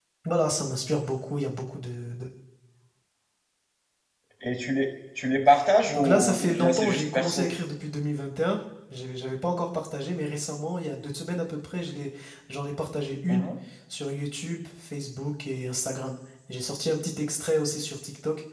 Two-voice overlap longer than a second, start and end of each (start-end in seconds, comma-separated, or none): 6.0-7.5